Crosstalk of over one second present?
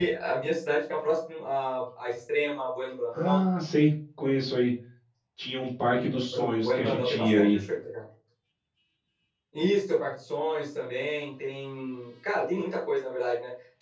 Yes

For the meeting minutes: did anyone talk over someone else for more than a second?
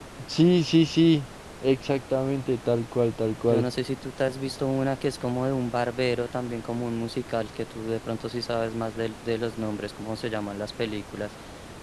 No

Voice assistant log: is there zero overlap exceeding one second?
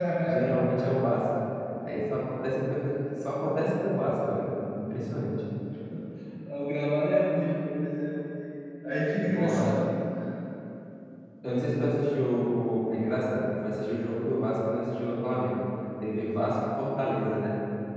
Yes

